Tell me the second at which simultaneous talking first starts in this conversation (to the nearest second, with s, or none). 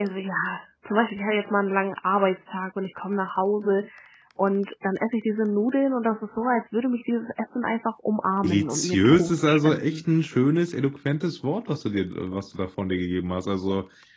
8 s